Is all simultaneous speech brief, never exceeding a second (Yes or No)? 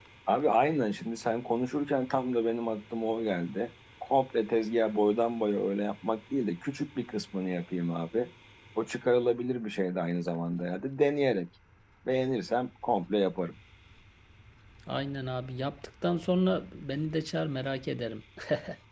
Yes